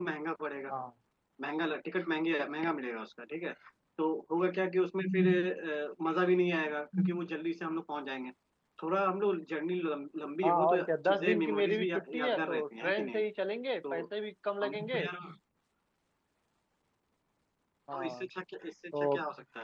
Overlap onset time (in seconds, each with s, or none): 10.4 s